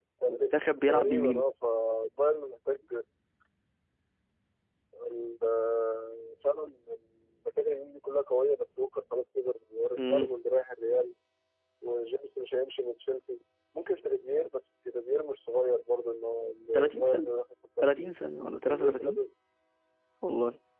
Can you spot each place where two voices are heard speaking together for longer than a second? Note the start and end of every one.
none

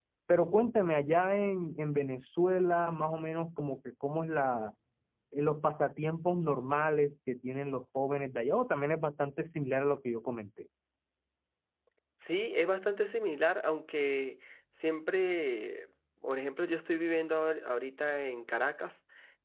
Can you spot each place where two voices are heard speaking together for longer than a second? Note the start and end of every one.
none

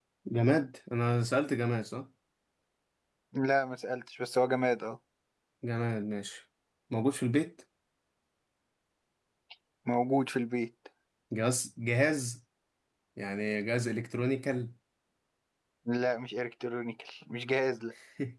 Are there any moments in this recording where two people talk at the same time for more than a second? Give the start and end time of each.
none

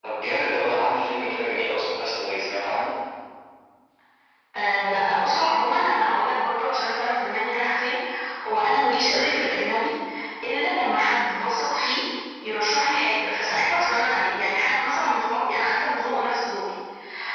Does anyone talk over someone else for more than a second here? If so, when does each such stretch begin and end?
none

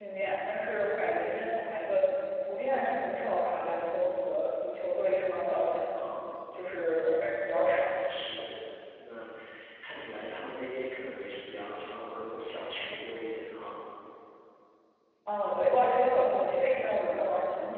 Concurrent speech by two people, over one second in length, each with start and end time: none

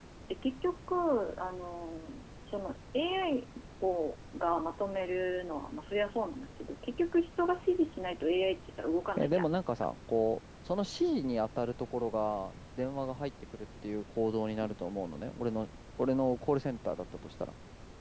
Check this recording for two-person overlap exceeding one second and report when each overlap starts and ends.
none

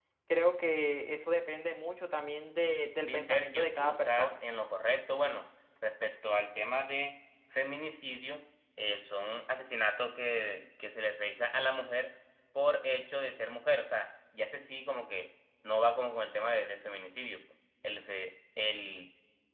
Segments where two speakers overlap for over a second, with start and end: 3.1-4.3

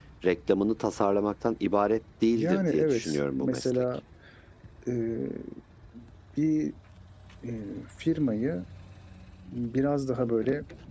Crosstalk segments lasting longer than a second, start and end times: 2.2-3.8

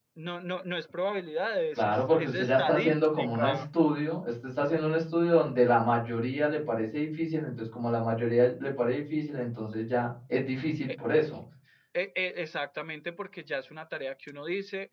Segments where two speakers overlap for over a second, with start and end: 1.8-3.6

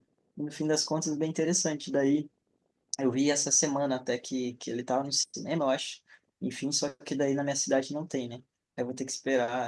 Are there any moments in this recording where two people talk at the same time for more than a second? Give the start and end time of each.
none

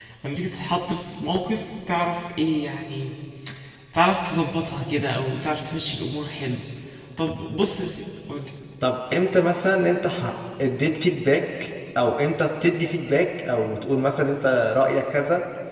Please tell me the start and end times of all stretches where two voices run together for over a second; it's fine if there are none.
none

